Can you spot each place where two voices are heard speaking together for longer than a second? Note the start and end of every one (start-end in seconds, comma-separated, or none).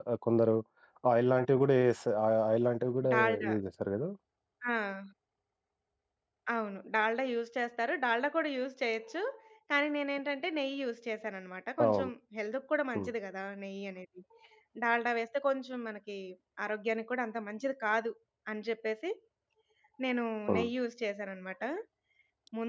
none